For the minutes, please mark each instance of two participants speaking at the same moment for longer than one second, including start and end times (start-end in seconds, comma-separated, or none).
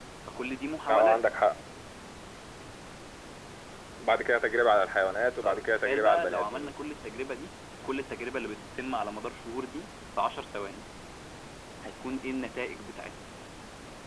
5.4-6.7